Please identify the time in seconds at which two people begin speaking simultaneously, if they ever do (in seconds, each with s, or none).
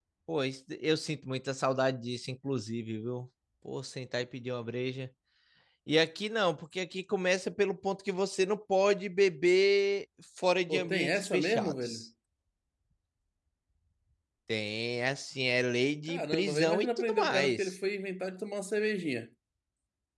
10.7 s